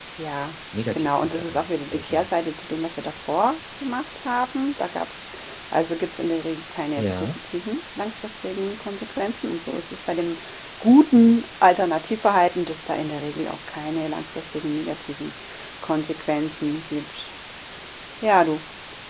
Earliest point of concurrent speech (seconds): 0.9 s

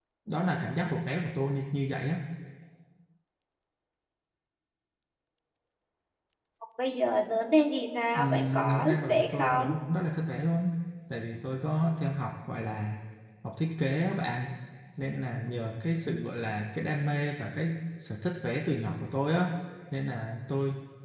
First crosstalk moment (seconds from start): 8.2 s

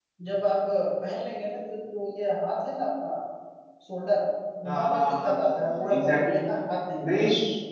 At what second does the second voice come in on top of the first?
4.7 s

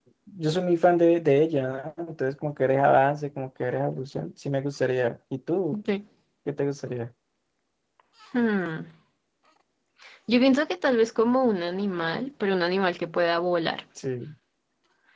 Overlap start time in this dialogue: none

